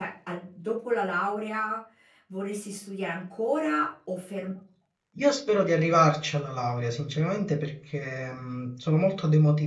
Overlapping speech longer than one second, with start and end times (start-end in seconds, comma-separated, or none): none